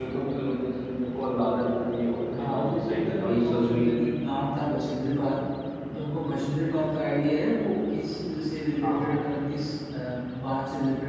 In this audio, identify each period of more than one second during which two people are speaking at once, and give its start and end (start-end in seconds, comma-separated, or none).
2.4-4.0